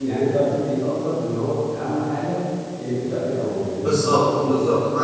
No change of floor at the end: No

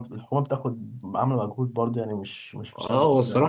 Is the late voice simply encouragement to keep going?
No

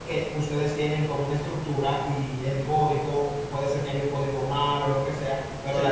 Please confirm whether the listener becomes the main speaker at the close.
No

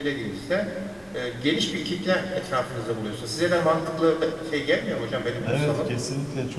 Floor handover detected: Yes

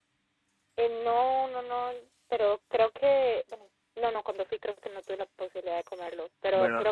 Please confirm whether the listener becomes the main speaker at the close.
No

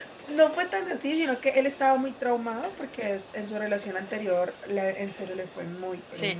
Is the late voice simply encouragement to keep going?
No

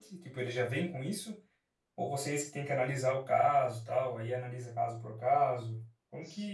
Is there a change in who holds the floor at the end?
Yes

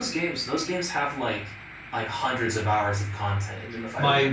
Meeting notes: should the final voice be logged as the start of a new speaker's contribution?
Yes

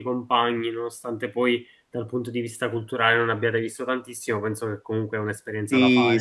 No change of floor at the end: No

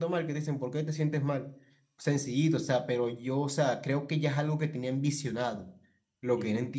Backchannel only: Yes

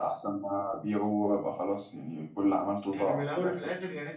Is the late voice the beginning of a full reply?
Yes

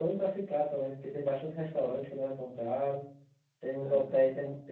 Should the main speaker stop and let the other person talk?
No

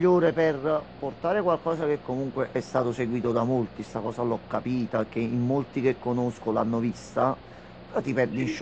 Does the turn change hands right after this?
No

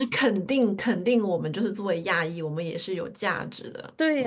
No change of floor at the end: No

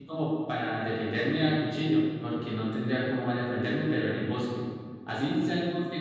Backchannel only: Yes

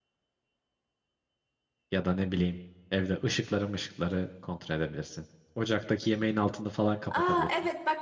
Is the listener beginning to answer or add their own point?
Yes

